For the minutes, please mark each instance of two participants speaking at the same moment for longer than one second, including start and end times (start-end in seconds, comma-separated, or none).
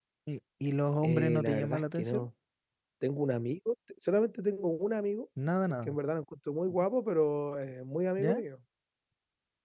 1.0-2.2